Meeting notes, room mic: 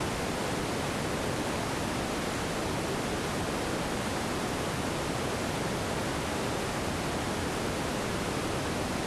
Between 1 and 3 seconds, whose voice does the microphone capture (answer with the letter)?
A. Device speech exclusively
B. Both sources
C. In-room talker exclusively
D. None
D